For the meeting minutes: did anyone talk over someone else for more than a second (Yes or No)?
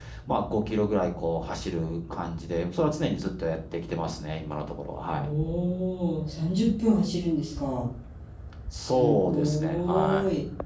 Yes